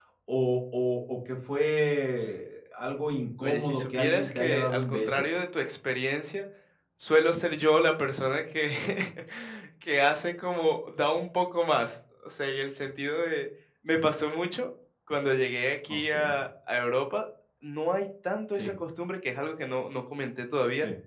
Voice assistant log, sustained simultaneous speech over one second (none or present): present